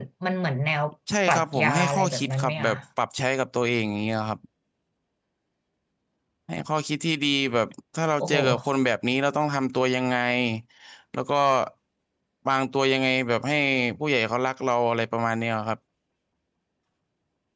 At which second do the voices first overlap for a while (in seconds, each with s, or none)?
1.3 s